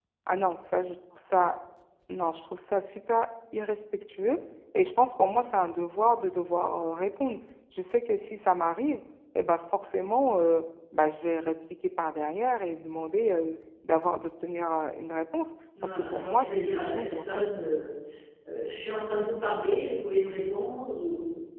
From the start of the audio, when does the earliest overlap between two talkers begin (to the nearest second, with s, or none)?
16 s